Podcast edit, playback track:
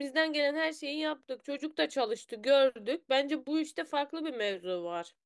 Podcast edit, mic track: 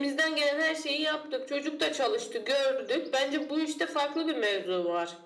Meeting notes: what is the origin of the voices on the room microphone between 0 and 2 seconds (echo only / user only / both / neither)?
echo only